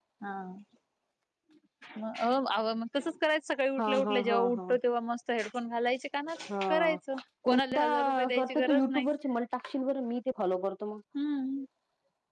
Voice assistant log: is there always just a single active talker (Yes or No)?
No